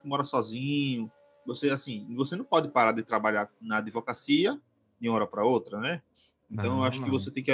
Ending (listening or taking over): listening